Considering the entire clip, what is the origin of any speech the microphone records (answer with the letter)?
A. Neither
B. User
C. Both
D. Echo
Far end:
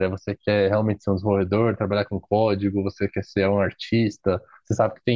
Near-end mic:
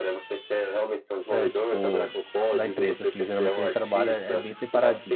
C